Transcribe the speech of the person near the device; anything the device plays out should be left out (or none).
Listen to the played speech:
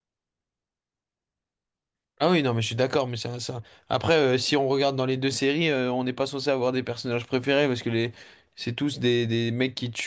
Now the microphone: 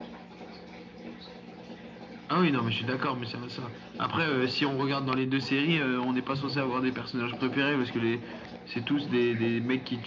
none